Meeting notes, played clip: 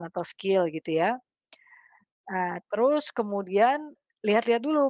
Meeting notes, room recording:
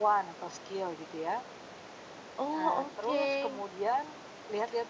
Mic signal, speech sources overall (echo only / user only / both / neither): both